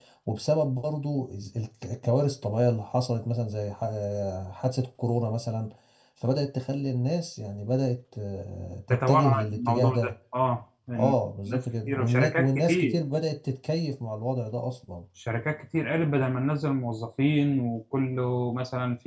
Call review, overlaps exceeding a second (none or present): present